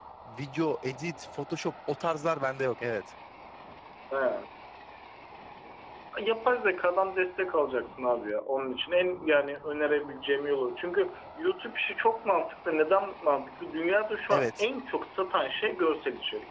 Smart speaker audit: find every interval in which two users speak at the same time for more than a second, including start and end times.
none

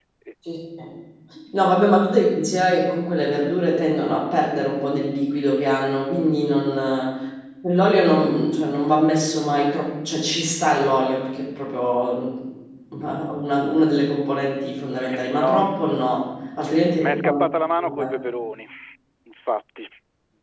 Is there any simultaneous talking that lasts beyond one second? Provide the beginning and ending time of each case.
none

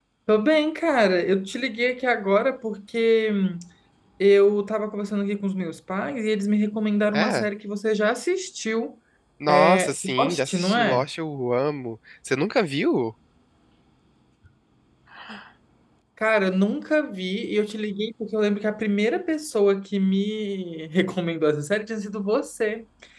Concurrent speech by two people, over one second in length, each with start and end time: 9.5-11.1

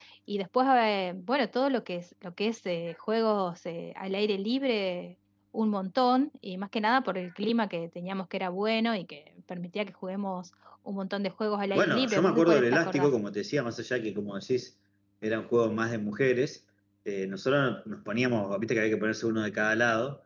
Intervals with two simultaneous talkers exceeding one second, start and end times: 11.7-13.1

